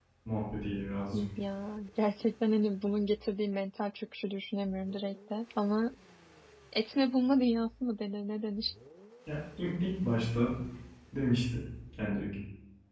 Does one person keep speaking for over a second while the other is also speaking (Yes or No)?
No